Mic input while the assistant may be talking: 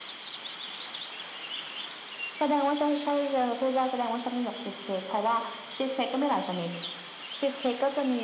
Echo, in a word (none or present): present